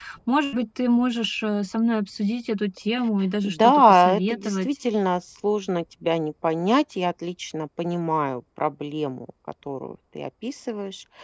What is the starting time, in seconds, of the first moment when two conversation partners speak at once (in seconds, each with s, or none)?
3.4 s